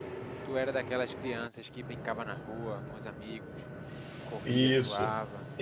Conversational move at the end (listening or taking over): taking over